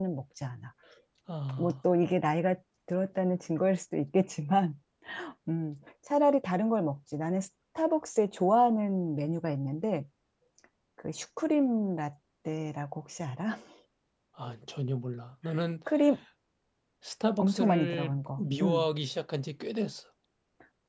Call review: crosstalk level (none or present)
present